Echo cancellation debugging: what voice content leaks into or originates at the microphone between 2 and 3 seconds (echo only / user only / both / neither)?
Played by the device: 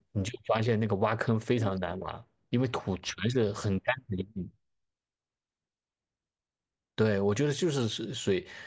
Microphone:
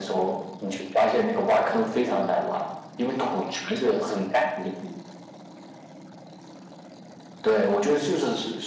echo only